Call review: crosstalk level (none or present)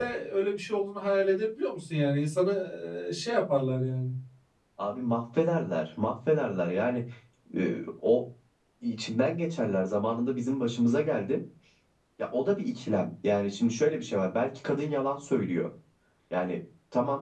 none